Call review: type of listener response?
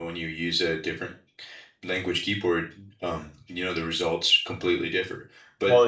listening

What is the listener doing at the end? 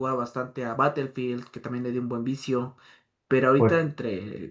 listening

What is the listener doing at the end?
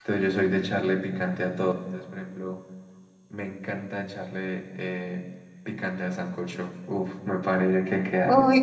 taking over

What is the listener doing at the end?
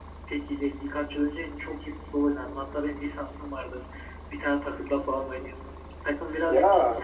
listening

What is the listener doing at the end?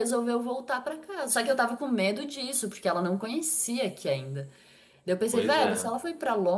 listening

